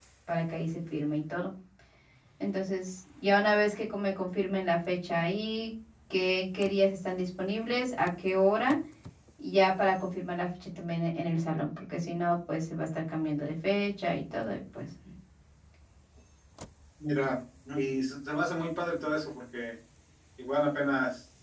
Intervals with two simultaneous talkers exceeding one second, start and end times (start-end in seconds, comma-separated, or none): none